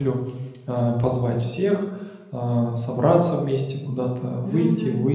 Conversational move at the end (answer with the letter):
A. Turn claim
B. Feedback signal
B